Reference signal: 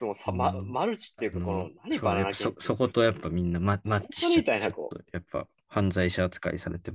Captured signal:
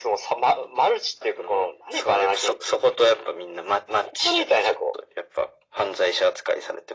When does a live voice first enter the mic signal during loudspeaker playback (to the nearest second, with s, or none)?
none